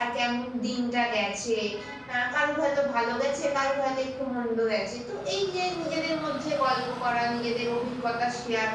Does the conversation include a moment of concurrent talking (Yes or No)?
No